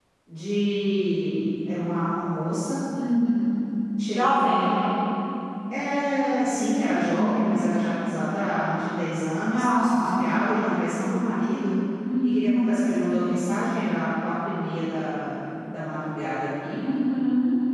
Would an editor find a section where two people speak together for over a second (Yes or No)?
No